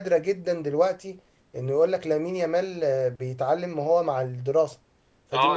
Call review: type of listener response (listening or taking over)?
taking over